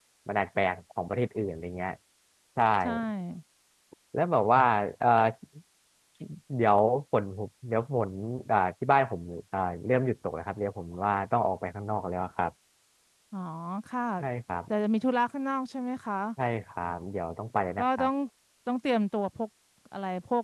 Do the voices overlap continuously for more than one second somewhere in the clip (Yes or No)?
No